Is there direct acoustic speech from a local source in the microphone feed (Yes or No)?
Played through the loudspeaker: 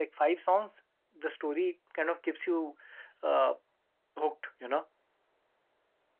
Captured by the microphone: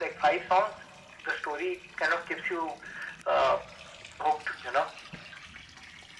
No